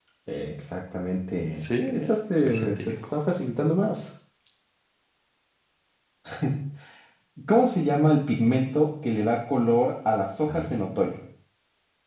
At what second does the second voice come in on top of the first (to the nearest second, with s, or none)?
2 s